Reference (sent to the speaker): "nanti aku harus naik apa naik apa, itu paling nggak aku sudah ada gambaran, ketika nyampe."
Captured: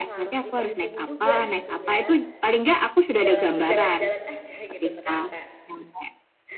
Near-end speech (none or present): present